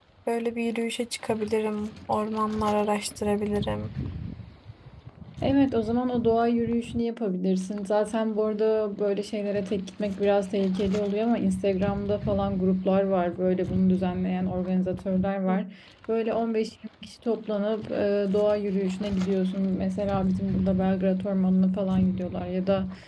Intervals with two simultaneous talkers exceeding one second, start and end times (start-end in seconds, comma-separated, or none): none